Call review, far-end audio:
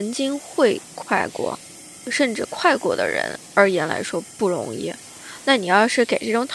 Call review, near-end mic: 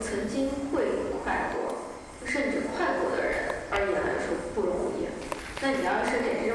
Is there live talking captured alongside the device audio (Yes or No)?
No